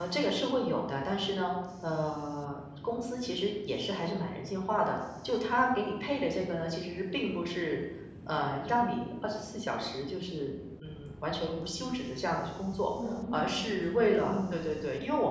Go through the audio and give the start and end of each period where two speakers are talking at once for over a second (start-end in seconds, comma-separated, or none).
13.3-14.6